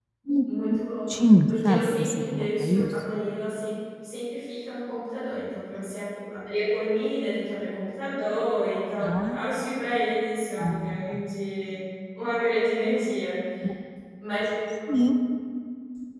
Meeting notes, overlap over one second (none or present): present